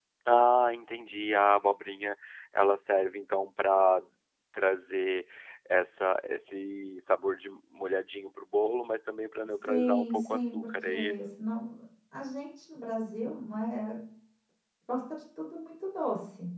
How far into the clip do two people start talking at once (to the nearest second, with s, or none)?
10 s